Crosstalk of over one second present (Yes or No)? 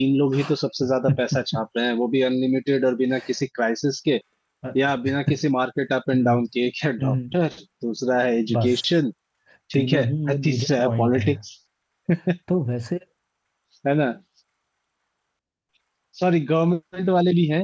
Yes